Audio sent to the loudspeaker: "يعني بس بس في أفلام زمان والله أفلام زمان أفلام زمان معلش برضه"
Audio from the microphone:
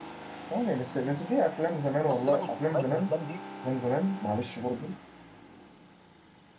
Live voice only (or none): بص سيبك من نوعيه من الافلام دي